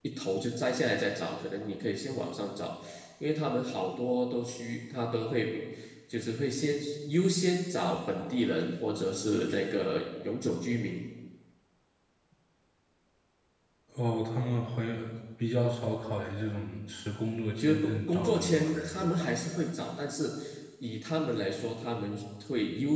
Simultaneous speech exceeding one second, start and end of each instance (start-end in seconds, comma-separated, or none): 17.6-19.3